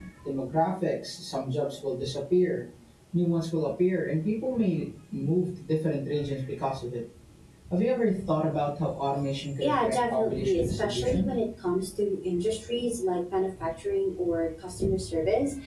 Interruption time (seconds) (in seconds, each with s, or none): 9.6 s